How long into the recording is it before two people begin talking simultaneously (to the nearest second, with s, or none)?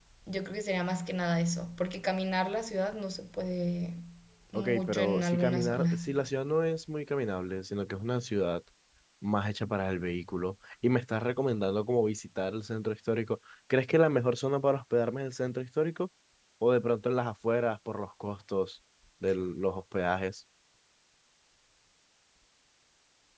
5 s